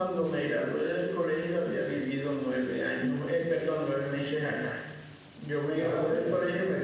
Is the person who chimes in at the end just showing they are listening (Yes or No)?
Yes